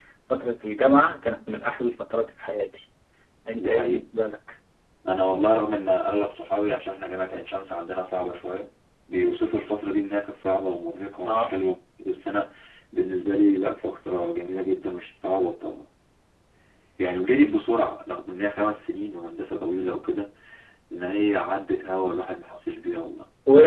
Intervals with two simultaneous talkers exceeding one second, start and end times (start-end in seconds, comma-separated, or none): none